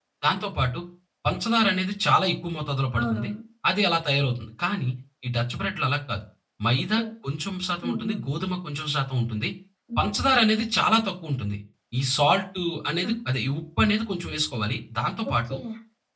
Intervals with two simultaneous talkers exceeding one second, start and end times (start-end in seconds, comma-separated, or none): none